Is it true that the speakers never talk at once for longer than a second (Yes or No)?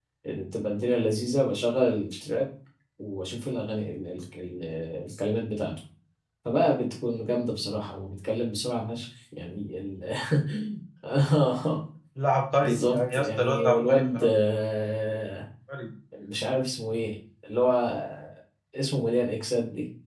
No